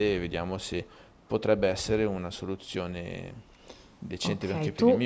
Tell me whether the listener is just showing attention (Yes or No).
No